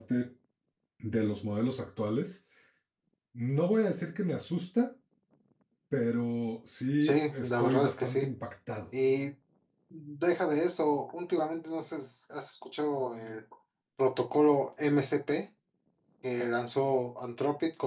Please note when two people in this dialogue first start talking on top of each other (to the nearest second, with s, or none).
7 s